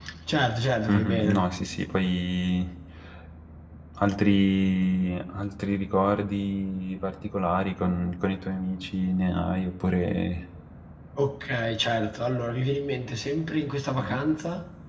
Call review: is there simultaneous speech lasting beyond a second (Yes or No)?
No